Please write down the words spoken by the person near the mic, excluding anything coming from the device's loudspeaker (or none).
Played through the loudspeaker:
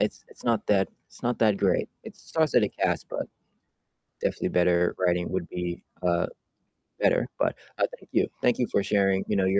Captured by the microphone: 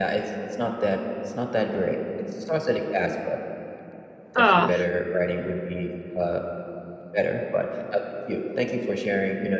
Ugh.